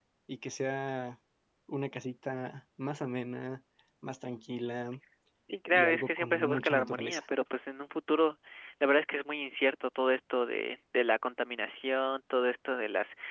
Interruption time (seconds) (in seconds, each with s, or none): 5.7 s